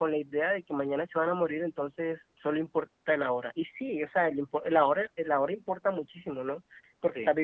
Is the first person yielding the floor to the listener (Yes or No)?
No